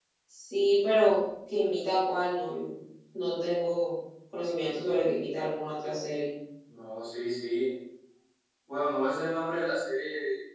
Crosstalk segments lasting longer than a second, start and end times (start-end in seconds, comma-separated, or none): none